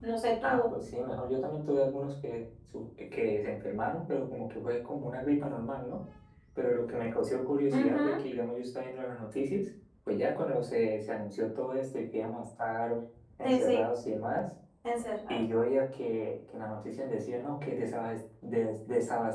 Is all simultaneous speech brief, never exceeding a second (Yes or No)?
Yes